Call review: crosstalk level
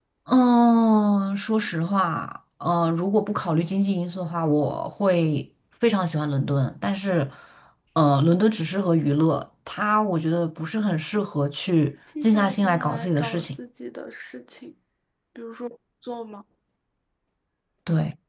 present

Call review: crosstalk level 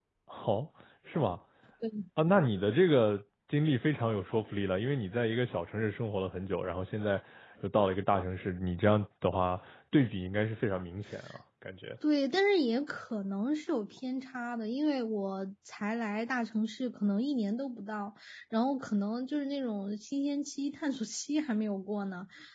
none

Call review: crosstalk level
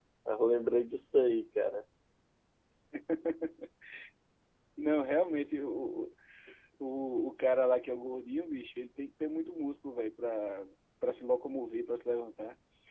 none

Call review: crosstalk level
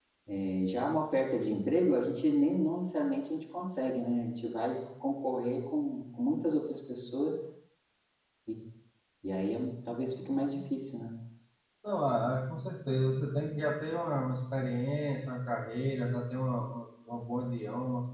none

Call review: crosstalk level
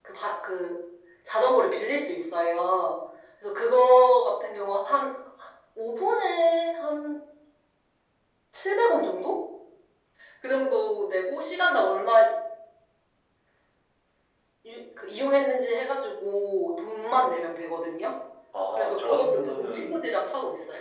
present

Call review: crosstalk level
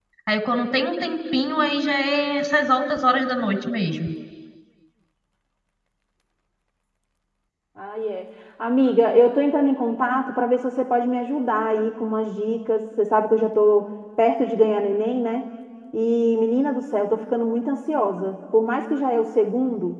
none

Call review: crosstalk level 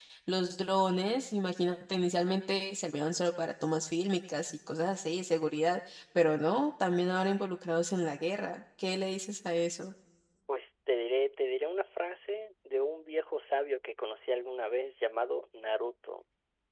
none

